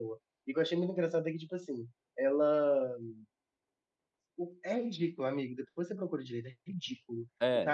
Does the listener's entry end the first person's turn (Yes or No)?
No